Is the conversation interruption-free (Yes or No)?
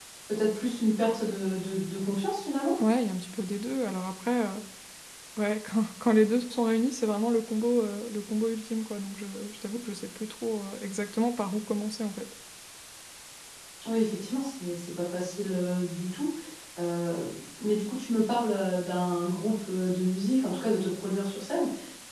Yes